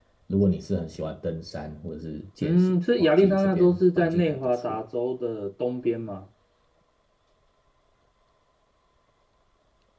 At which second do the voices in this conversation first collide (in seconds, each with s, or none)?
2.4 s